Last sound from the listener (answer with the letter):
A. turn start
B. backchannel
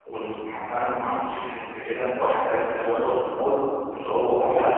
B